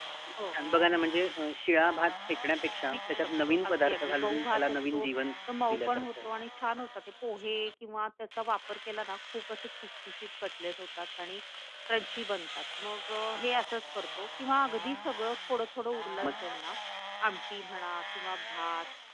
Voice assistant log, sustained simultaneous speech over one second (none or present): present